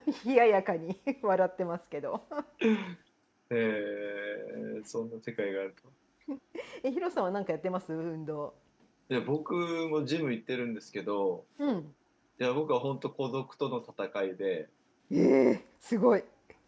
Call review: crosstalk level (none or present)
none